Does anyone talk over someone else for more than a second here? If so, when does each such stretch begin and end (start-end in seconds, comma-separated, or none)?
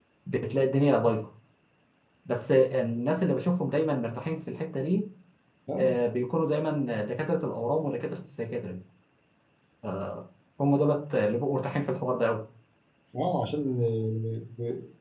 none